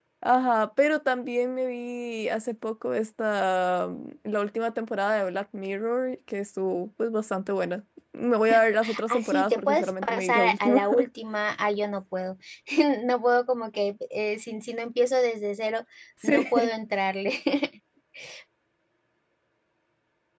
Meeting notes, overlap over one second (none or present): present